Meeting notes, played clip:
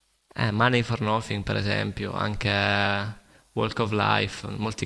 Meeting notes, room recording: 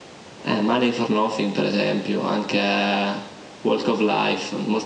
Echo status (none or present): present